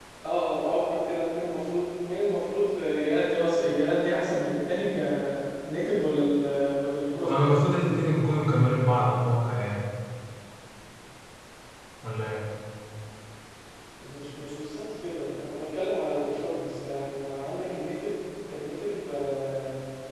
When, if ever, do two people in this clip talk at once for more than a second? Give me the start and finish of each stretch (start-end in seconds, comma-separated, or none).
none